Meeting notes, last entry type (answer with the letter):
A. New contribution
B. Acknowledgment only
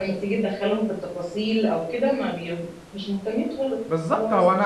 A